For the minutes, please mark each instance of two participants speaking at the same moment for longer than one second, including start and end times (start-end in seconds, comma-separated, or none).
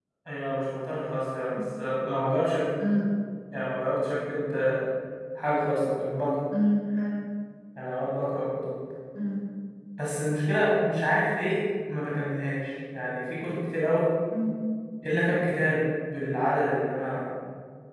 none